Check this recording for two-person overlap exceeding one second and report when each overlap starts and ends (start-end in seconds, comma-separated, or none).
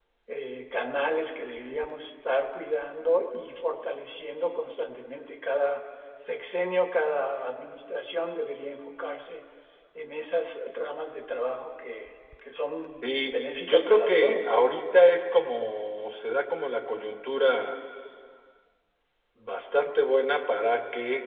13.0-14.5